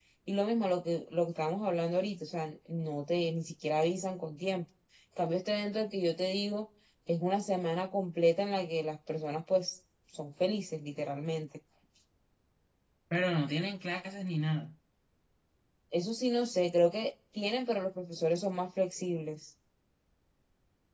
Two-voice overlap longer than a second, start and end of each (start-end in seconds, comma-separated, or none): none